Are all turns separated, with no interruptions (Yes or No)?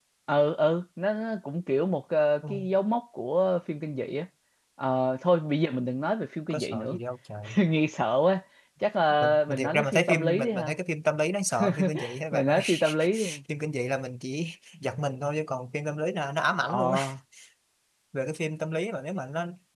No